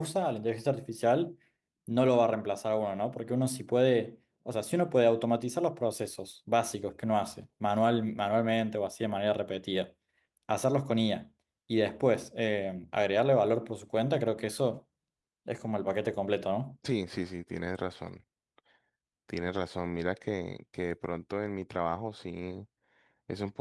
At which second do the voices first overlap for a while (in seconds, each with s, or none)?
none